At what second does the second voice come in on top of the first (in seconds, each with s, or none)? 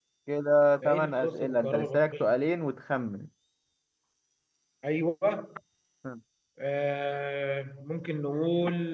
0.8 s